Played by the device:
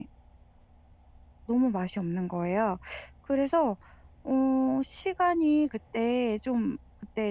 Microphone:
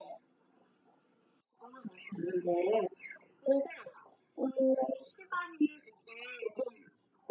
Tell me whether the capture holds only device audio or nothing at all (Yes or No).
Yes